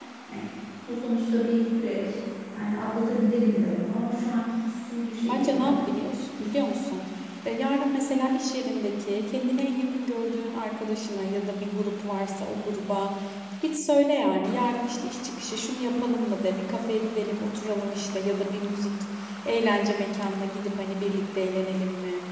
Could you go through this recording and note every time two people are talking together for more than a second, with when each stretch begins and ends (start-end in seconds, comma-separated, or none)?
none